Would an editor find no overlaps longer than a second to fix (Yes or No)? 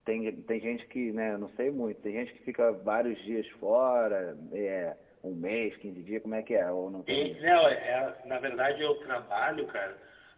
Yes